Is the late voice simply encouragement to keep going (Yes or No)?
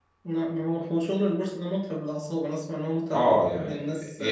No